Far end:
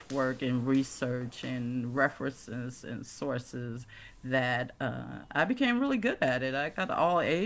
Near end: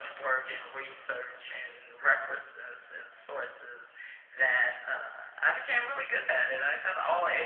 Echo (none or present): present